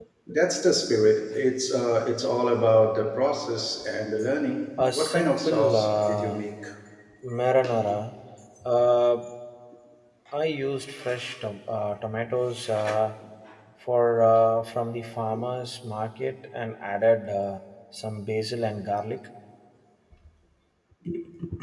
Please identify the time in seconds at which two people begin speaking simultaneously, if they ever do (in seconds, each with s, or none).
4.9 s